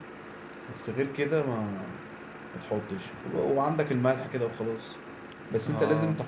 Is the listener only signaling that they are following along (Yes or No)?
Yes